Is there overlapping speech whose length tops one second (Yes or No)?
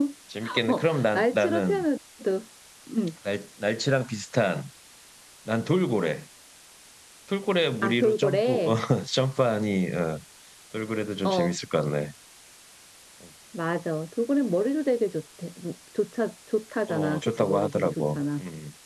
Yes